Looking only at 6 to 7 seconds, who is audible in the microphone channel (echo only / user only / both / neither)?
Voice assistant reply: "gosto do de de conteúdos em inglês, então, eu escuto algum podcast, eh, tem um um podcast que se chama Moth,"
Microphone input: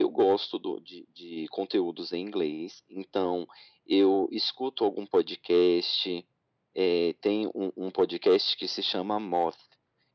echo only